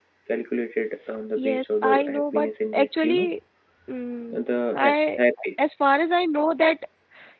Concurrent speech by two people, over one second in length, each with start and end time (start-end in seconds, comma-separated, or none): 1.4-3.3